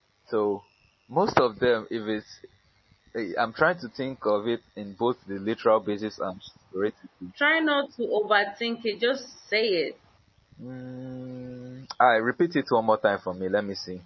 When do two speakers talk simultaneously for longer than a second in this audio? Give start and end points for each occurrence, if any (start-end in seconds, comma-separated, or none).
none